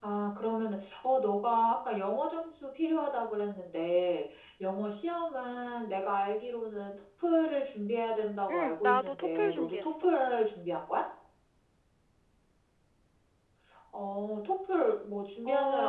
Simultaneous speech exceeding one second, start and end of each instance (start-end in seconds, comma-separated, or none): 8.5-10.1